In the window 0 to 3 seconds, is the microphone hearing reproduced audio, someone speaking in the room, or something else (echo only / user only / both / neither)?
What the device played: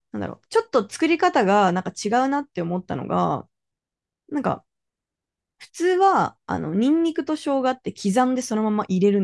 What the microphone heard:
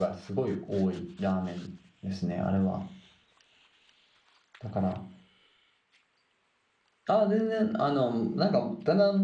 user only